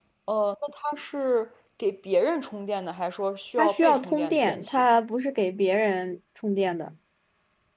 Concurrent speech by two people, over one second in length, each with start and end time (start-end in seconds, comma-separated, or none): 3.6-4.9